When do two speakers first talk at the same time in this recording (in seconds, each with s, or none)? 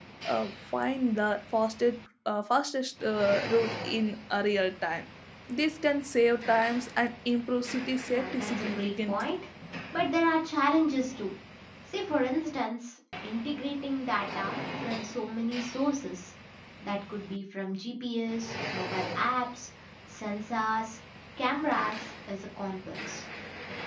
8.1 s